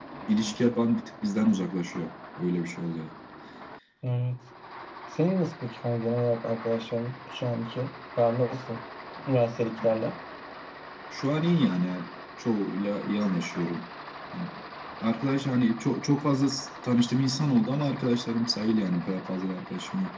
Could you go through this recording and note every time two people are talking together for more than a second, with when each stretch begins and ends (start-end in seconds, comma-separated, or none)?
none